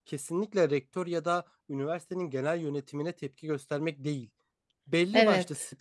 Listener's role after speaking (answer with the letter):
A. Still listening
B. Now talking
A